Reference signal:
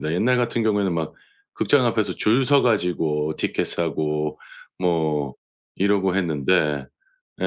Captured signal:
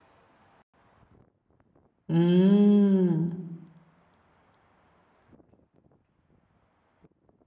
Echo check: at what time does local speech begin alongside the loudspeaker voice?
2 s

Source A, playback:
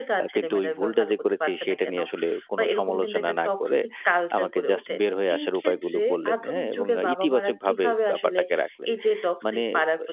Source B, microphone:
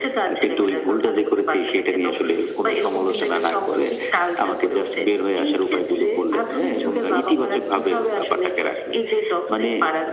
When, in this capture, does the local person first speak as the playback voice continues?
none

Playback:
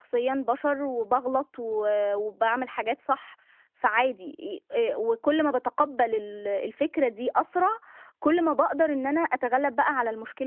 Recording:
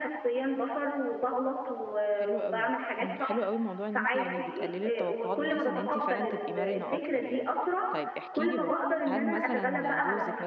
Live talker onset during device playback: 2 s

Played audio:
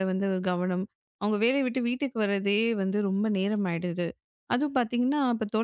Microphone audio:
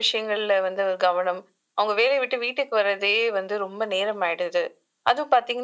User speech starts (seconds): none

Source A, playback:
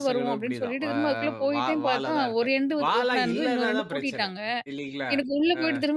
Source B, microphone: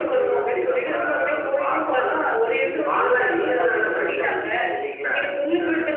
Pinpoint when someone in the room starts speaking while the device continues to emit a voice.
3 s

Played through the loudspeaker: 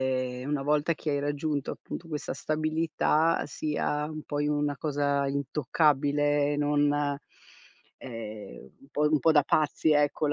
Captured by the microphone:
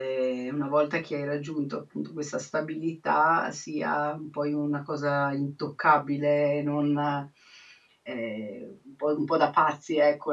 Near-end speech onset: none

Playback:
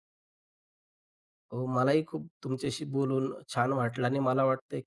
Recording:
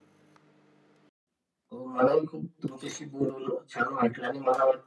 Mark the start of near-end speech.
none

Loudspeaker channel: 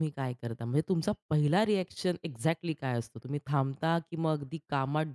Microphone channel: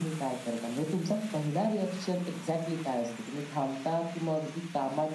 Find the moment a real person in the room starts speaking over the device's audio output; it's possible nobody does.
none

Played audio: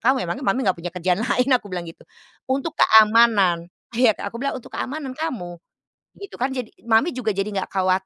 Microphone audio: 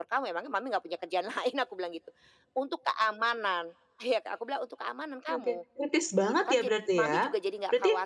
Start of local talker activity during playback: 5 s

